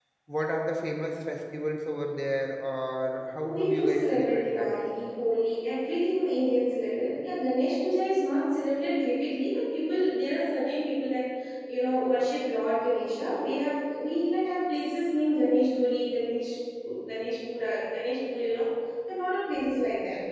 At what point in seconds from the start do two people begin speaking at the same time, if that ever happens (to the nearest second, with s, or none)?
3 s